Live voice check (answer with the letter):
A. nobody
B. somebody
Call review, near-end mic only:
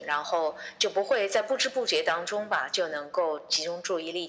A